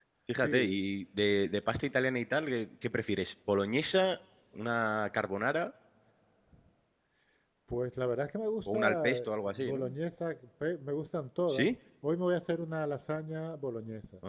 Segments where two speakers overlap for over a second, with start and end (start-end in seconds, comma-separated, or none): 8.7-9.9